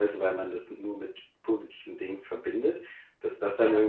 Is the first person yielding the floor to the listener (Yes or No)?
No